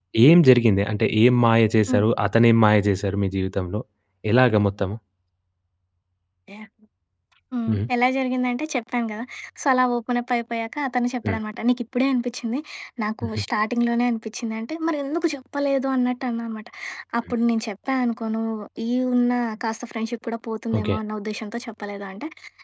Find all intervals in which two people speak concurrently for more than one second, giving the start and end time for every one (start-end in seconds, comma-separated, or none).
none